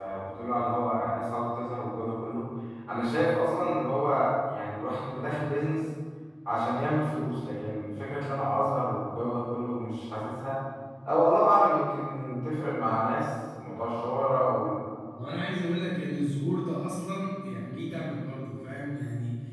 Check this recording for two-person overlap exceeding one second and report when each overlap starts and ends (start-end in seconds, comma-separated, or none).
none